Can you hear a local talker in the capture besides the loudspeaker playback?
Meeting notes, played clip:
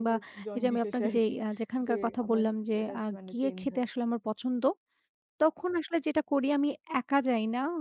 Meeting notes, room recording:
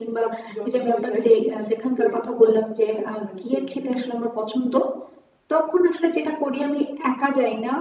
No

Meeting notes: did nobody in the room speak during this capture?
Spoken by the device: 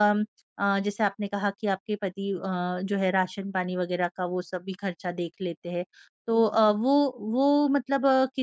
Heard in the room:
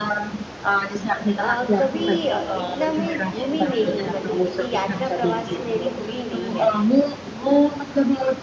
No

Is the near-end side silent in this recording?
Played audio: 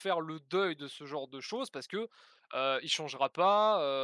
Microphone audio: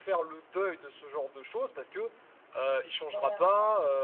No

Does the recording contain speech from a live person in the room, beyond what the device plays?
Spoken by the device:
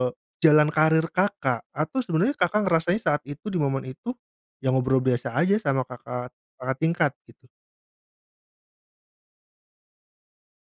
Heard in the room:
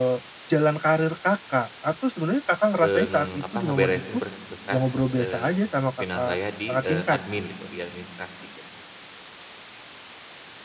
Yes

